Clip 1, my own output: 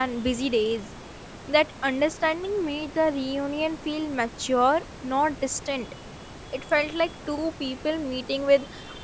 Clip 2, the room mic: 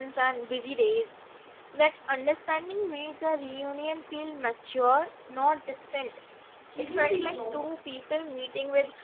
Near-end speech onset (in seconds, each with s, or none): 6.7 s